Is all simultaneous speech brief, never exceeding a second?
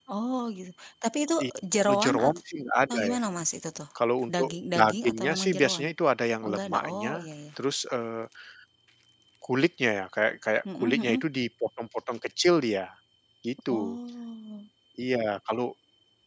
No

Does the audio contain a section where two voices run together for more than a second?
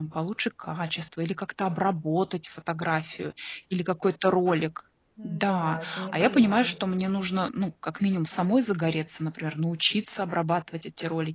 Yes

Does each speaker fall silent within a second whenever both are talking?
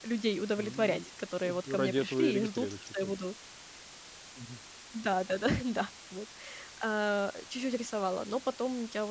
No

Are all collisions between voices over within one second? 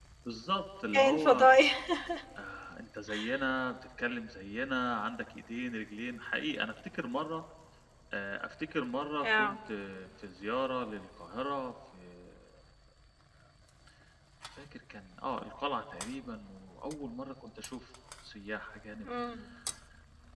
Yes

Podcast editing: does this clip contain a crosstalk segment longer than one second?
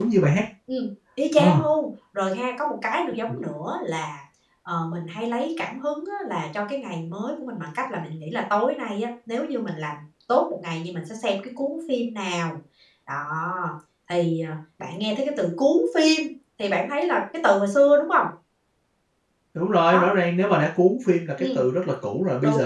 No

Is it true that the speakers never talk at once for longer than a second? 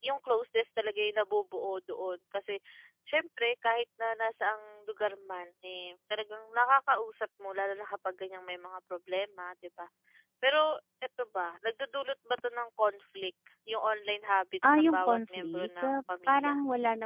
No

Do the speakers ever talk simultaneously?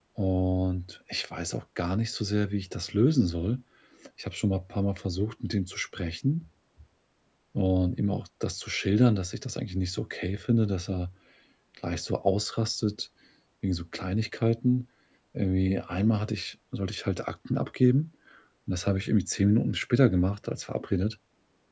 No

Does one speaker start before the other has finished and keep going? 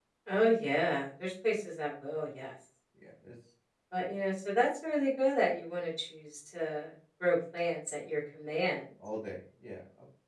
No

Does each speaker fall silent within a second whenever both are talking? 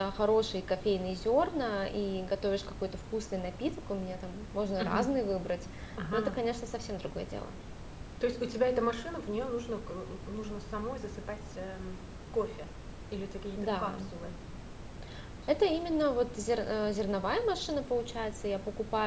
Yes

